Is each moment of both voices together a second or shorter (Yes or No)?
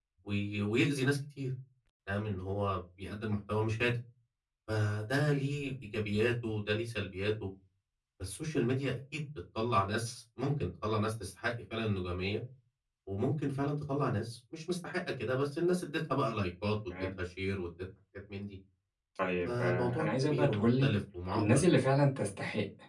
No